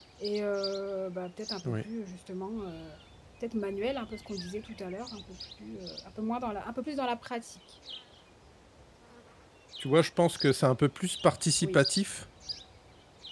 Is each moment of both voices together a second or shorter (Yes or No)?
Yes